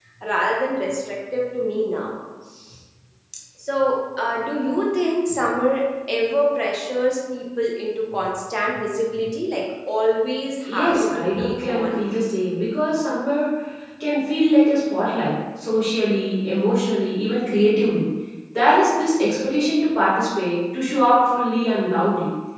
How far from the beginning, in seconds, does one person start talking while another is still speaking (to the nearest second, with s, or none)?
11 s